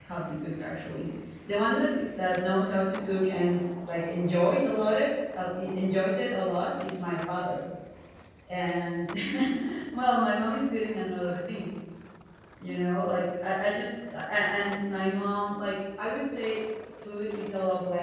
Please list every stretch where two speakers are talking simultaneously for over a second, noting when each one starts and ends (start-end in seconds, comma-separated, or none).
none